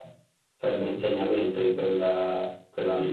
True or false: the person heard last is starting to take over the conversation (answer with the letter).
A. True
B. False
A